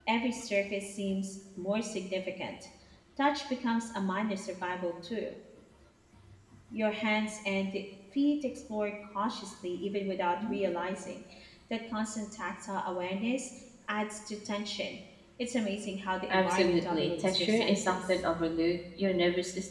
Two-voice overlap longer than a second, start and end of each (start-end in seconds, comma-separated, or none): 16.3-18.2